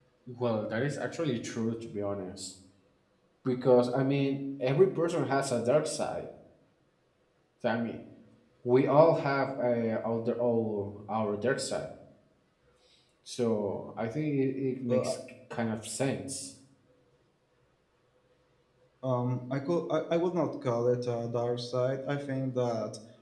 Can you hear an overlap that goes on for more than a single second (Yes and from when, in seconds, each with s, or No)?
No